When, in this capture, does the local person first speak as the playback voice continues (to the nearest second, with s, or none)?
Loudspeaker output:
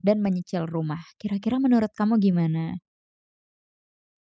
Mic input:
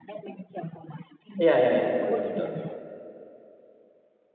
1 s